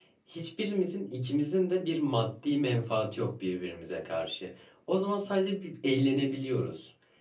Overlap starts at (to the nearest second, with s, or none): none